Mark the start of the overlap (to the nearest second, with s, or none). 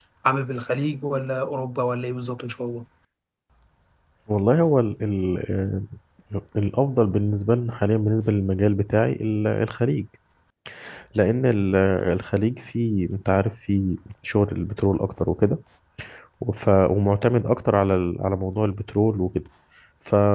none